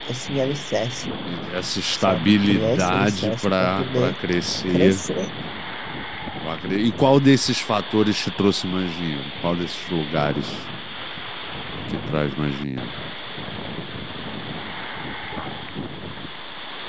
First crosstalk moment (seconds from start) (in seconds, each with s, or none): 2.0 s